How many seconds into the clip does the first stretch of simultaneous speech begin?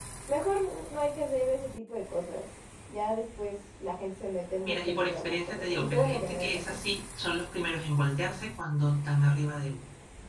4.6 s

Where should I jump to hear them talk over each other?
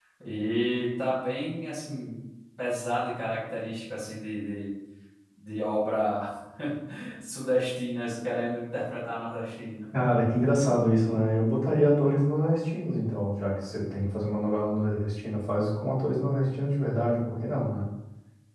none

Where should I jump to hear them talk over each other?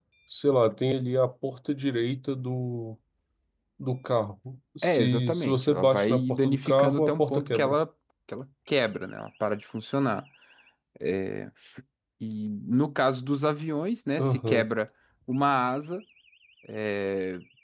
4.8 s

